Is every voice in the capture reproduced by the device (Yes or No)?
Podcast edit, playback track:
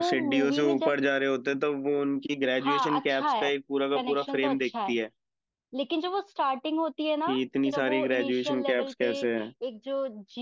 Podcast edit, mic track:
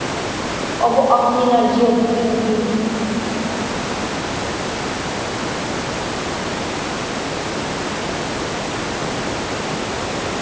No